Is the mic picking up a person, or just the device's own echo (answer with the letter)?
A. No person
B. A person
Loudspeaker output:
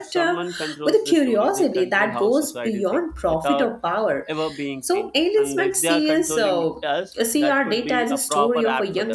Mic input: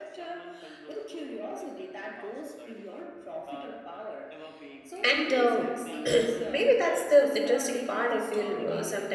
B